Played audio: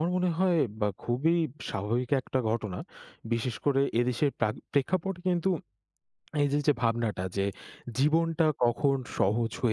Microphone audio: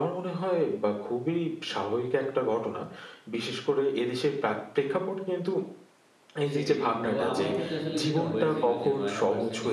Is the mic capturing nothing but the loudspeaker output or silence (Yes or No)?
No